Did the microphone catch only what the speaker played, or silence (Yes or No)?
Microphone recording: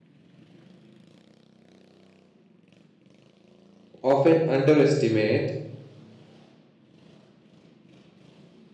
No